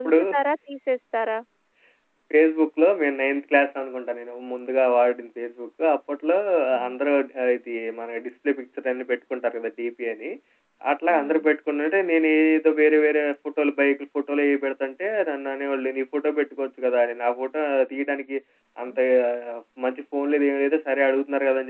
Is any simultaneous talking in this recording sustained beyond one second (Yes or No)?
No